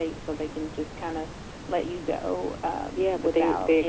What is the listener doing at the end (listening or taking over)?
taking over